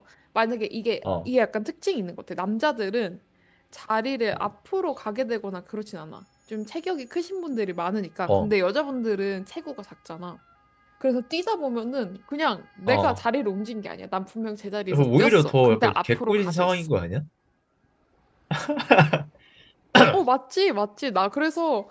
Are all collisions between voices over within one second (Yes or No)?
No